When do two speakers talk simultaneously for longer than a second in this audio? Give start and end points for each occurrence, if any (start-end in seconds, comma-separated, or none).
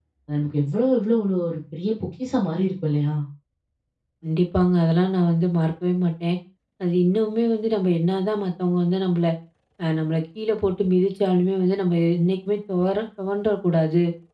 none